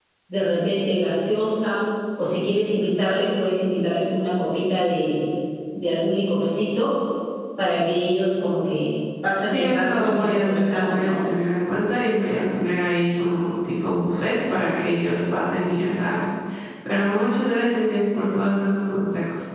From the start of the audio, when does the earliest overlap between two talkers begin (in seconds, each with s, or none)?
9.5 s